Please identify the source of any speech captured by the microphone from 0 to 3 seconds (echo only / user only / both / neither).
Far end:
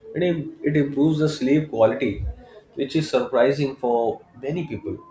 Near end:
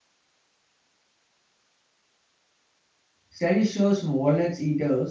neither